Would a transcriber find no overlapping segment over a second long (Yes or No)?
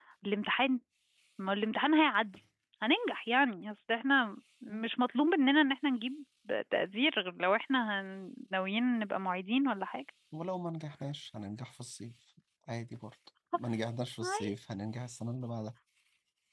Yes